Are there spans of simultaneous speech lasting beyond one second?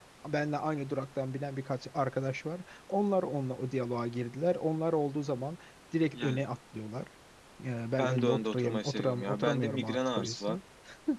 Yes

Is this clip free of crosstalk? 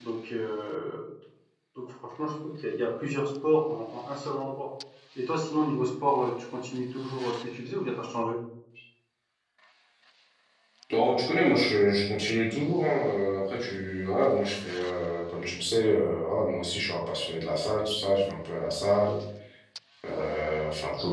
Yes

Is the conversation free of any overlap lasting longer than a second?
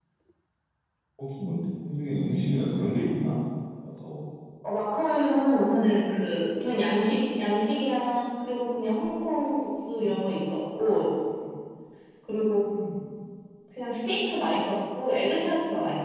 Yes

